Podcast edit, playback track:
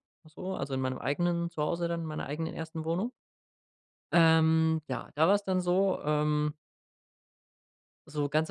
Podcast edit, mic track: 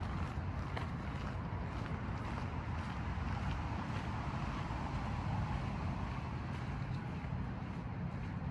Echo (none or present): none